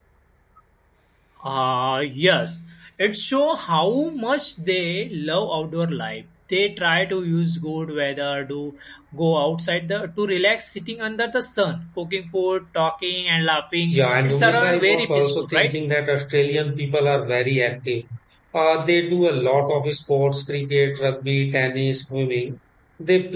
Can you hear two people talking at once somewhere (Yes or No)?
Yes